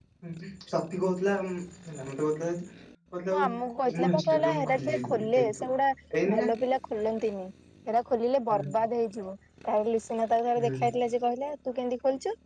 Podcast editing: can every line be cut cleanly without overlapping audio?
No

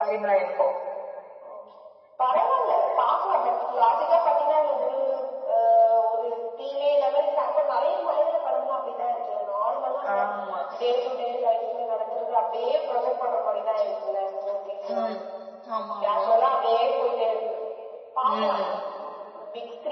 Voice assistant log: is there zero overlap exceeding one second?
Yes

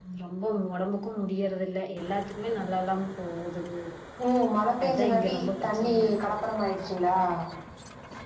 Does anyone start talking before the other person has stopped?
Yes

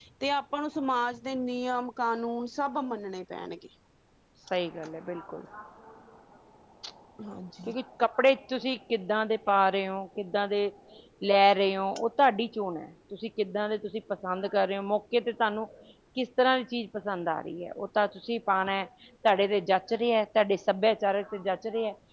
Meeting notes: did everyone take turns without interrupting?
Yes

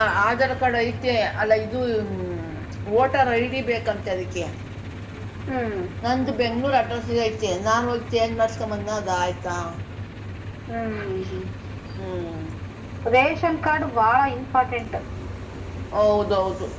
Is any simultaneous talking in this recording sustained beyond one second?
No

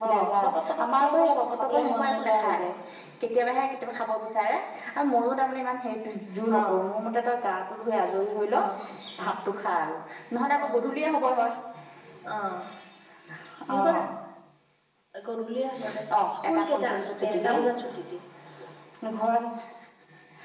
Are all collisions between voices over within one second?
No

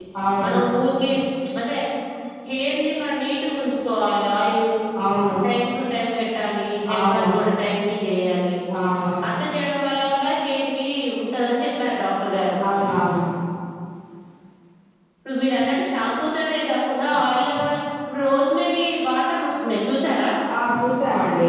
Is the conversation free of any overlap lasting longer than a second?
Yes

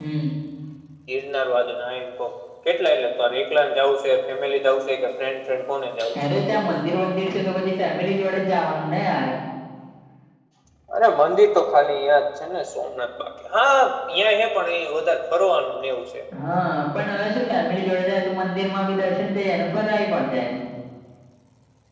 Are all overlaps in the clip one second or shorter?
Yes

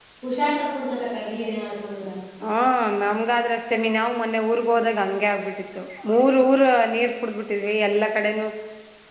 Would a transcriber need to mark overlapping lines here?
No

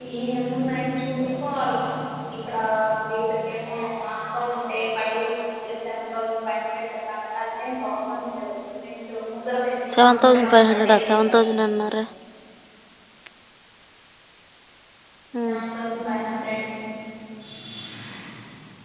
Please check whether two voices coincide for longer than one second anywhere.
Yes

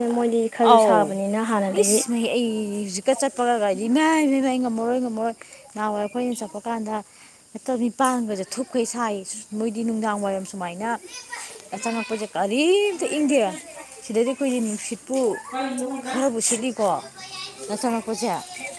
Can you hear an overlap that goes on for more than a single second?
No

